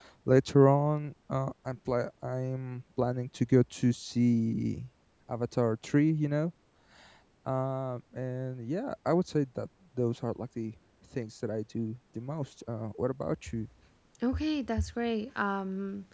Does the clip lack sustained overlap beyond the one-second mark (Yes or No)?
Yes